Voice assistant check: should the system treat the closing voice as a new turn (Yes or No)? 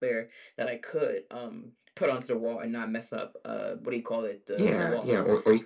Yes